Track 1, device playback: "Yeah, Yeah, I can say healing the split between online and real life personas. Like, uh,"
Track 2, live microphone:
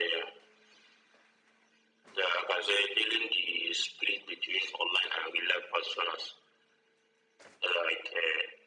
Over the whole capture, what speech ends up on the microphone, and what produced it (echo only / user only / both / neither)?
echo only